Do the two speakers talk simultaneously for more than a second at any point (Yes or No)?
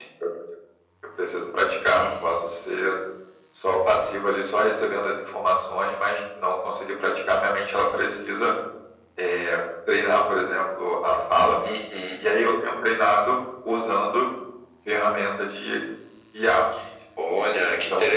No